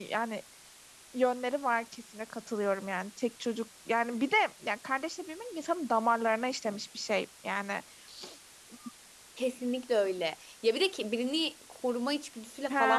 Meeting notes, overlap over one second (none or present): none